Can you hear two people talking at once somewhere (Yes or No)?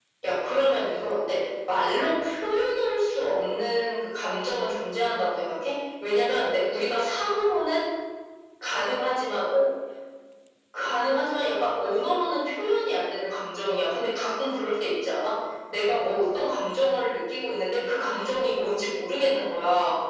No